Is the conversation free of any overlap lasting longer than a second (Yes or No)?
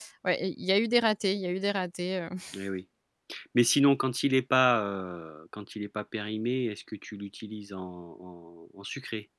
Yes